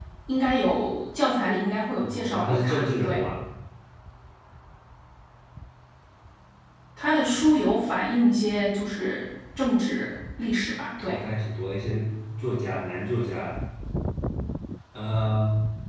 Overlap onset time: 2.0 s

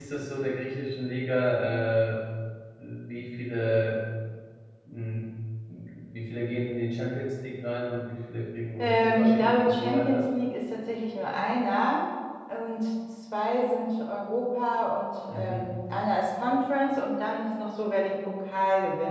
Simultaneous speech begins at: 8.8 s

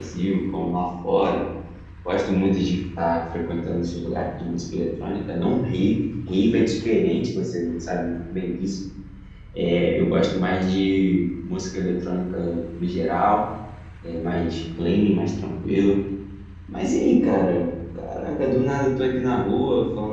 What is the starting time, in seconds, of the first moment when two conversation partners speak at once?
none

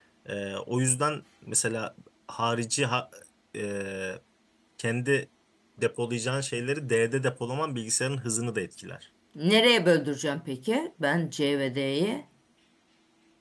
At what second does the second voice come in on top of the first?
none

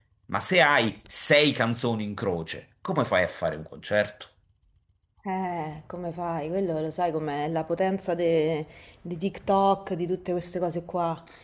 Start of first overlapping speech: none

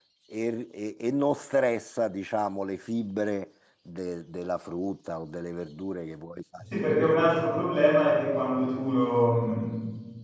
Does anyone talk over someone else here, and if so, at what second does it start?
none

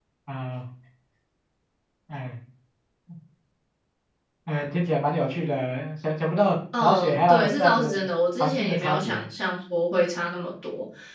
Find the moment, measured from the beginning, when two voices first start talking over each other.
6.7 s

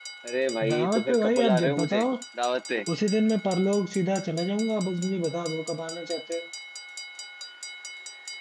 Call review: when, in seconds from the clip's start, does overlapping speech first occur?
0.7 s

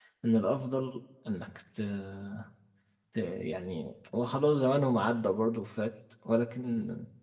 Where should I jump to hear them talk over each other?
none

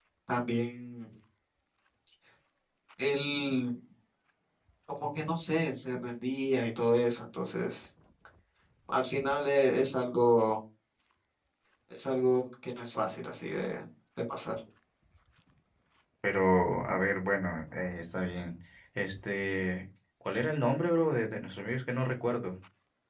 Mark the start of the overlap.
none

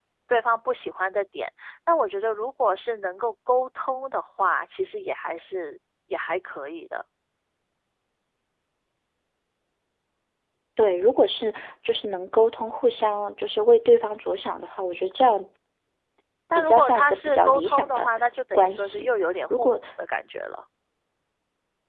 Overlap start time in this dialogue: 16.6 s

